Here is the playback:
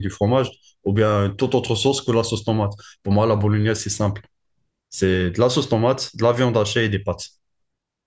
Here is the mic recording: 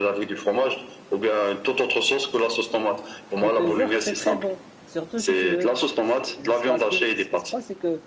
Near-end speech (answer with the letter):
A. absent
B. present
B